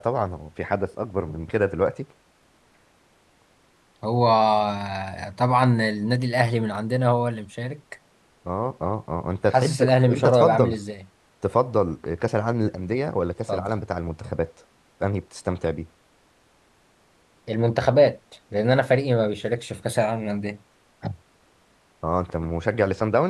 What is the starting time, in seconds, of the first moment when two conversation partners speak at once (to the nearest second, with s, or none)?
10 s